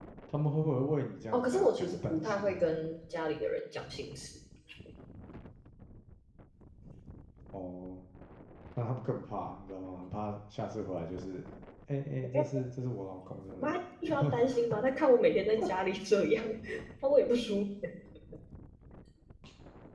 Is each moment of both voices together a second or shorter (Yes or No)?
No